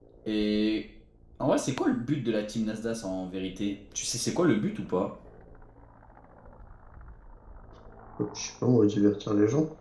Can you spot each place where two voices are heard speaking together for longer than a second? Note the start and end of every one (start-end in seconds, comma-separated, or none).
none